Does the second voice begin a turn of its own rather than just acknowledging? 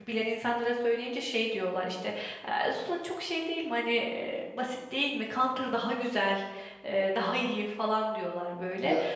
No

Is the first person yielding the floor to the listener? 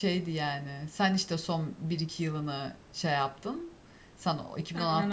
No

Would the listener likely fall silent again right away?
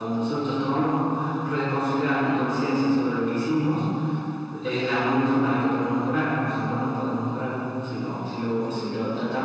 Yes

